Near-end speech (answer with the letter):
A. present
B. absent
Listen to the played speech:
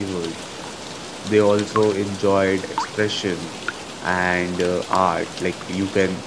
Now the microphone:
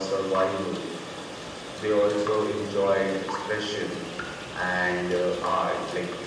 B